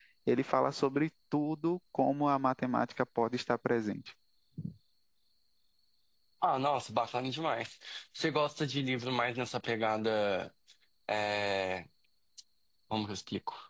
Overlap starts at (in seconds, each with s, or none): none